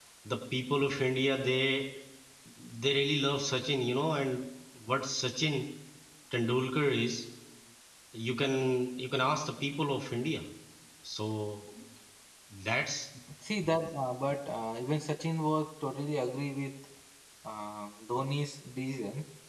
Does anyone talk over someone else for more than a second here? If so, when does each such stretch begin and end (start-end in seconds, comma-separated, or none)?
none